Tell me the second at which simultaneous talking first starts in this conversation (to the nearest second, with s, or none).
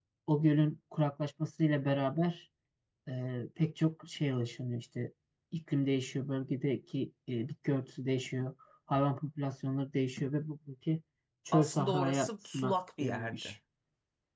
12 s